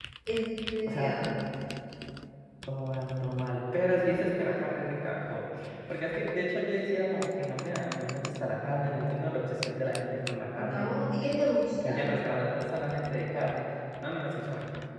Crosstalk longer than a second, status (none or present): none